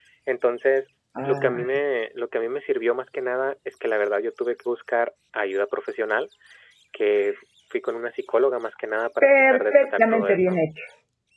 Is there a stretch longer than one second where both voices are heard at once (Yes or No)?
Yes